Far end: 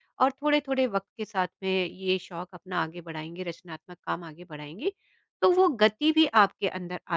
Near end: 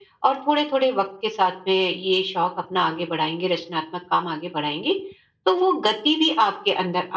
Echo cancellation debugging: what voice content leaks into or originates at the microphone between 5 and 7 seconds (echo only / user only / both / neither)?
echo only